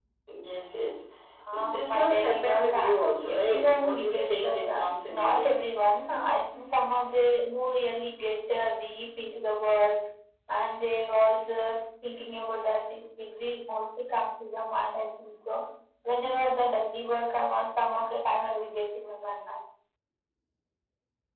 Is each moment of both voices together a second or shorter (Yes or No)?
No